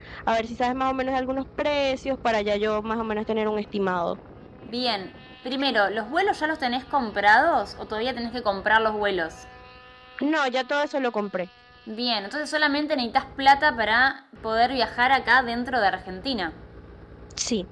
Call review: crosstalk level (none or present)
none